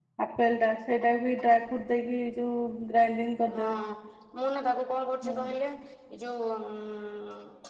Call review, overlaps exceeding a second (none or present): none